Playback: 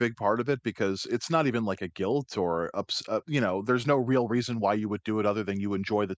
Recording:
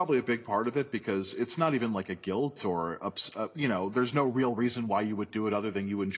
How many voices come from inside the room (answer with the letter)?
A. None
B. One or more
A